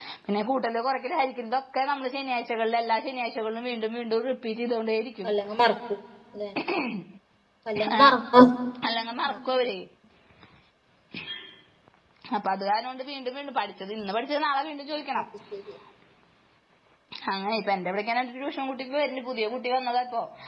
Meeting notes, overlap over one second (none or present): none